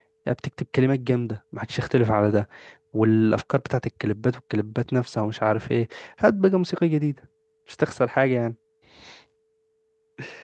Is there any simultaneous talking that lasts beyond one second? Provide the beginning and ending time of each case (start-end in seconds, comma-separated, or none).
none